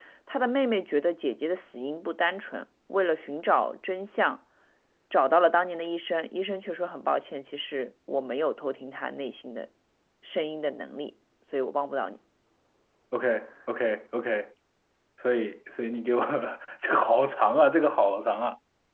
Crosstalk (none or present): none